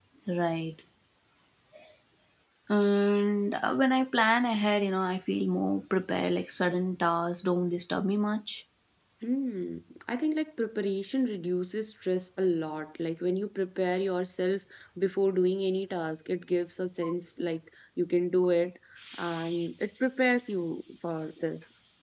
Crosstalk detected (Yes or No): No